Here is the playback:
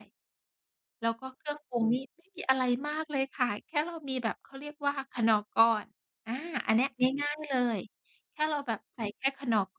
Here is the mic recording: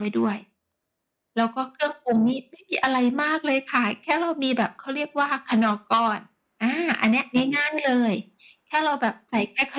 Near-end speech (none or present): none